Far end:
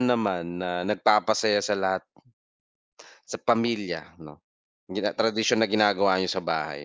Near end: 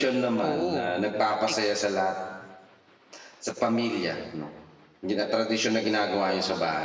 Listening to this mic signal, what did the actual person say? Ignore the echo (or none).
oo, matik.